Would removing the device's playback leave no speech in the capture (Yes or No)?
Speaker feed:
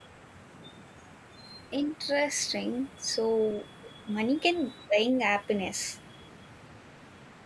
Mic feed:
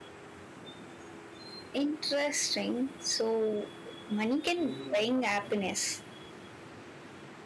No